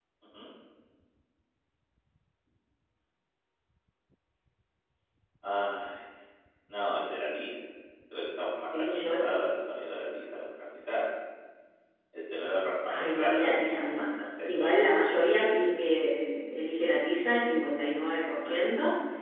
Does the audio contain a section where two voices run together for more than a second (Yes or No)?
Yes